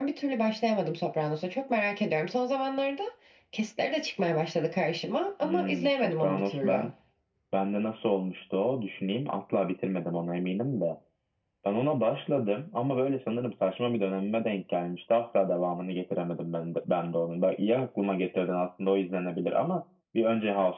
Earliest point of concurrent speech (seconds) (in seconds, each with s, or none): 5.4 s